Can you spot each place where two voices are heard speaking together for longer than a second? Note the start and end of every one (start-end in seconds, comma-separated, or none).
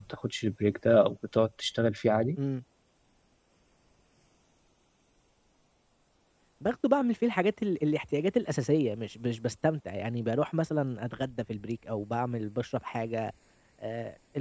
none